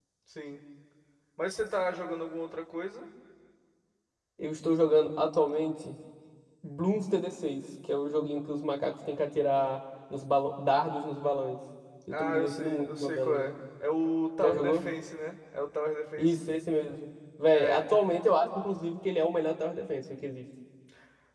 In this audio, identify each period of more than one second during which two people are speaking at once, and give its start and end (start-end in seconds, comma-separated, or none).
12.1-13.5